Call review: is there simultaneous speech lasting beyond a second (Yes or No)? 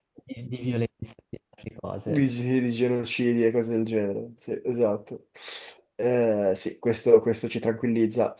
No